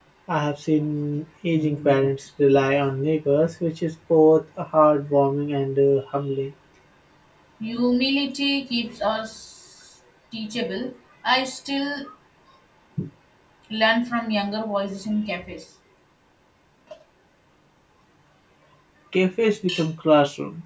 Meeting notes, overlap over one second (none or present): none